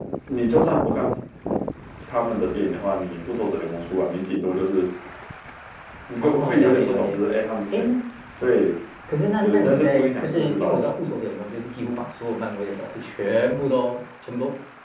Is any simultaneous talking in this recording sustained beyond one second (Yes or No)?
Yes